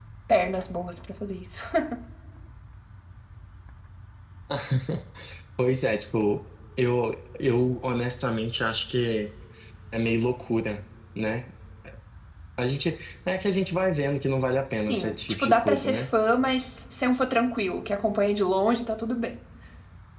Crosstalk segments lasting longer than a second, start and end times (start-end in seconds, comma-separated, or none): 14.7-16.1